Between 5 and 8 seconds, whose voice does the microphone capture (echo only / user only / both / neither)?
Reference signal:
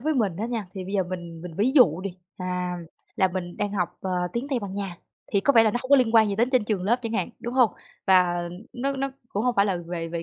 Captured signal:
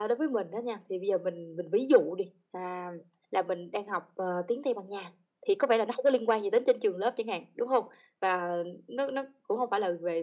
echo only